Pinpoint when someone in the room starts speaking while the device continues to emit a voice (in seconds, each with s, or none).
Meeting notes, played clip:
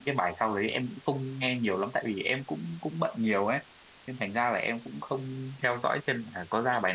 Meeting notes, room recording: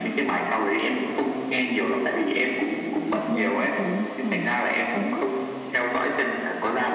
3.1 s